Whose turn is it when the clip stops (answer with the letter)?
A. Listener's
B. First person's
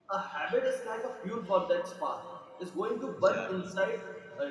B